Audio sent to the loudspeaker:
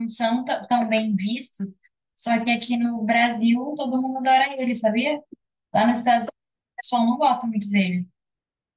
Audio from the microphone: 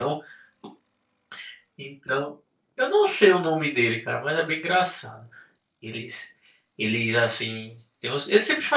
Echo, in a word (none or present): none